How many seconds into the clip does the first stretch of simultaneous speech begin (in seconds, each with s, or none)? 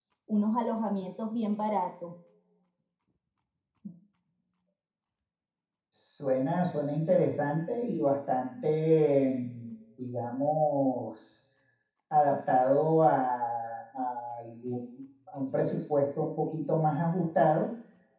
none